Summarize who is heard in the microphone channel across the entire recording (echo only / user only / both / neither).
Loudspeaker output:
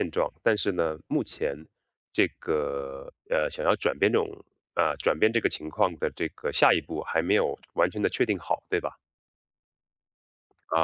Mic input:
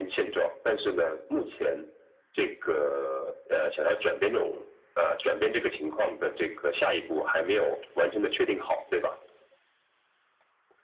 echo only